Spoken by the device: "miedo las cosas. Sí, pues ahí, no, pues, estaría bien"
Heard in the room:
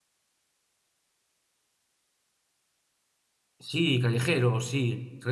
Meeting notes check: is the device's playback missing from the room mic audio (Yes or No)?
Yes